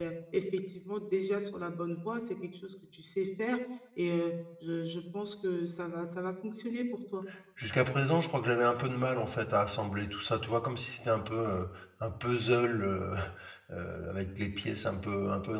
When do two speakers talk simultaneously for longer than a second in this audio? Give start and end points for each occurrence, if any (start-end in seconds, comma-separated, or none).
none